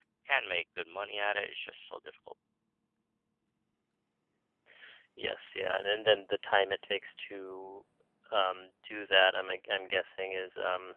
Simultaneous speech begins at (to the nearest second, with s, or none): none